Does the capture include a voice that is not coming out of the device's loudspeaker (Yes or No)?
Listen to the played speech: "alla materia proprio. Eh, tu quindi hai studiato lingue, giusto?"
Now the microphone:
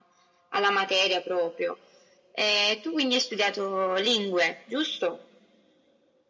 No